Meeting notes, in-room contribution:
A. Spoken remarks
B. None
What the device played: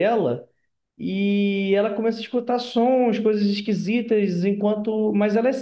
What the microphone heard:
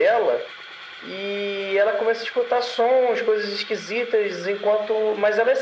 B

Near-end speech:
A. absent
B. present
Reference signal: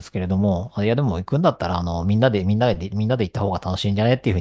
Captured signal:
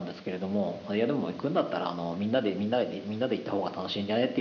A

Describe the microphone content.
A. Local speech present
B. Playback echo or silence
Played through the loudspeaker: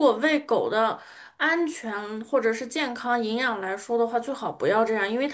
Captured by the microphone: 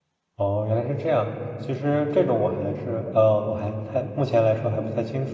A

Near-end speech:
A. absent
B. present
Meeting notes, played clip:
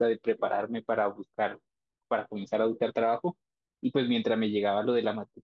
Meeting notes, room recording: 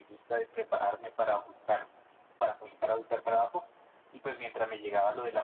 A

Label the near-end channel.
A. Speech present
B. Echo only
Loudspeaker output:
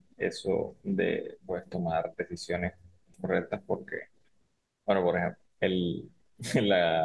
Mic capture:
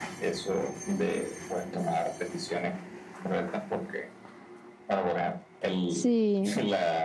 A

